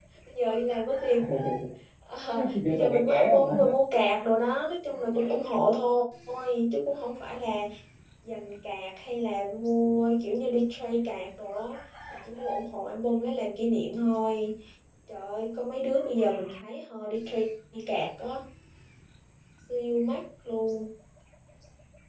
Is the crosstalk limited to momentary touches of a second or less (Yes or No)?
No